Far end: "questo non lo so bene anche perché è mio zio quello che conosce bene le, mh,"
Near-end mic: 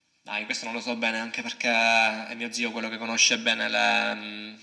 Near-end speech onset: none

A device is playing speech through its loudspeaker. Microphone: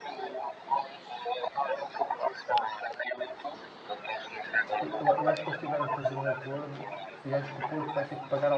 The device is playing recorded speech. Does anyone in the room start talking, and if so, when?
4.8 s

